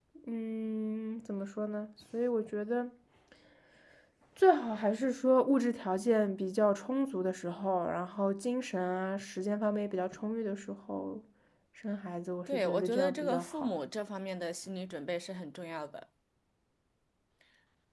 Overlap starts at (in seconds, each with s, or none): 12.5 s